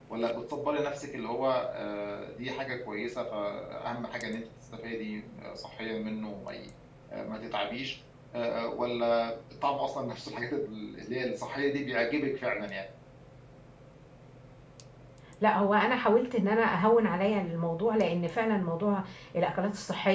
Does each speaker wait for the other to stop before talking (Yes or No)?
Yes